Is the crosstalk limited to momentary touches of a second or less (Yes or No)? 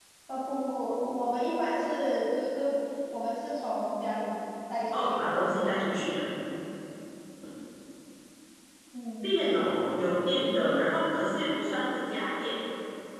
Yes